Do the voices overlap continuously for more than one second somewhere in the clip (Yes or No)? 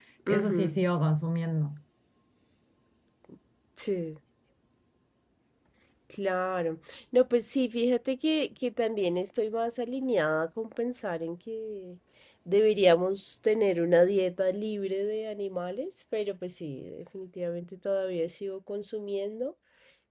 No